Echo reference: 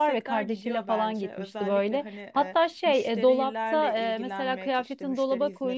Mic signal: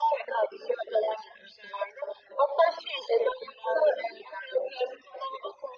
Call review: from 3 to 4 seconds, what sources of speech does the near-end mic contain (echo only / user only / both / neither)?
echo only